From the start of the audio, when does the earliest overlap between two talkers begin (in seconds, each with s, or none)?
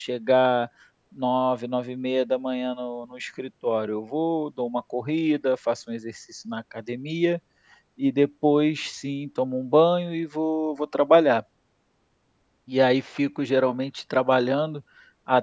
none